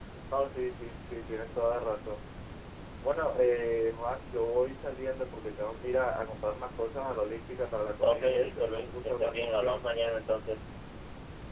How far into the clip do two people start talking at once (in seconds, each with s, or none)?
8.0 s